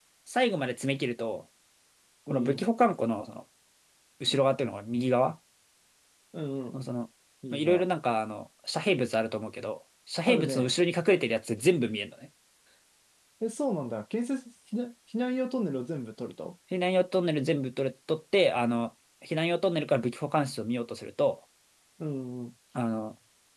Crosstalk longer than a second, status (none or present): none